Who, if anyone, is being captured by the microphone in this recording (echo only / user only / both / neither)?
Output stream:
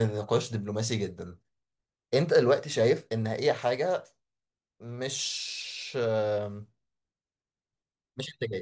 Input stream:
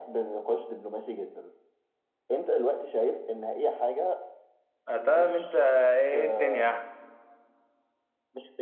both